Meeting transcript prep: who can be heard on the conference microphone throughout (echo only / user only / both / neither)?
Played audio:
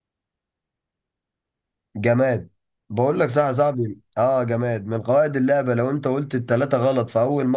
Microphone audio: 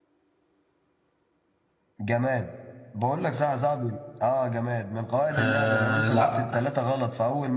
both